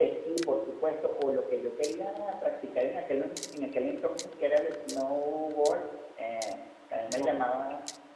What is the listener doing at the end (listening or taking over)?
listening